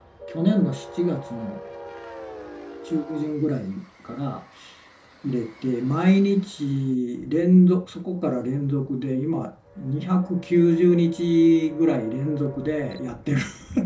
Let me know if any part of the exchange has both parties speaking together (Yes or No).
No